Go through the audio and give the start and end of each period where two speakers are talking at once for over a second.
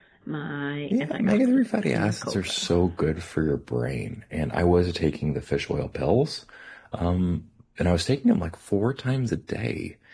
0.9-2.7

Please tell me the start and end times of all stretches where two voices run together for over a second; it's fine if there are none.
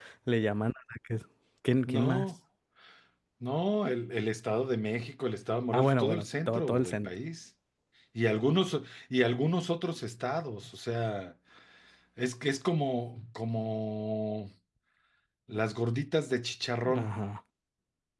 5.7-7.1

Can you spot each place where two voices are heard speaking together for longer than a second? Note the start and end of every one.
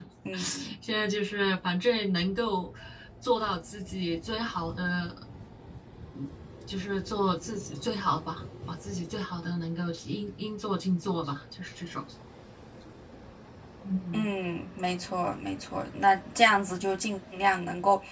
none

